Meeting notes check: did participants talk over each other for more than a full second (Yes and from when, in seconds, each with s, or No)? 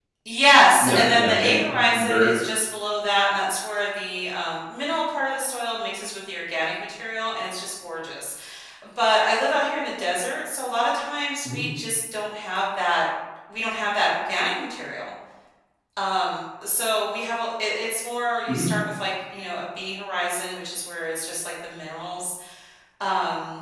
Yes, from 0.8 s